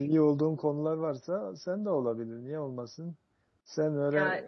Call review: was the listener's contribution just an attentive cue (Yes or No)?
Yes